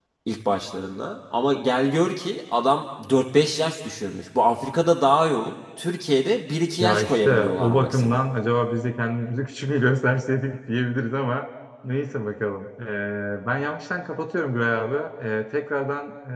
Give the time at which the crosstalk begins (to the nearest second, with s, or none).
7 s